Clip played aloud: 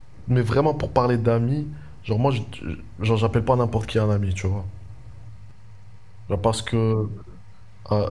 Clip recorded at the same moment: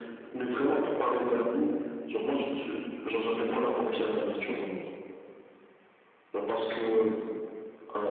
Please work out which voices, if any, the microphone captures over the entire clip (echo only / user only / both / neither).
both